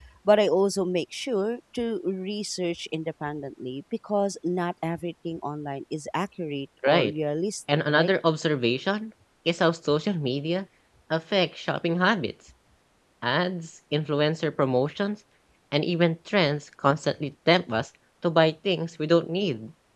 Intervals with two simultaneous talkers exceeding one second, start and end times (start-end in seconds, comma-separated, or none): none